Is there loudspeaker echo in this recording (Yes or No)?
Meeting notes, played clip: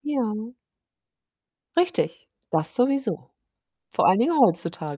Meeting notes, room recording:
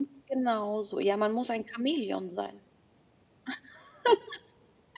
No